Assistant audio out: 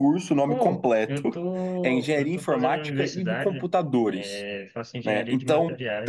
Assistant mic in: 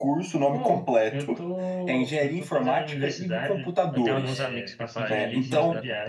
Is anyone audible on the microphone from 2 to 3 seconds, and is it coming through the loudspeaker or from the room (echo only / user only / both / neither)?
echo only